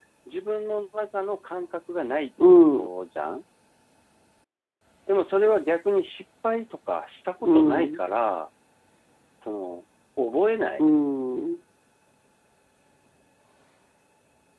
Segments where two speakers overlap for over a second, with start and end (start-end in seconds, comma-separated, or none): none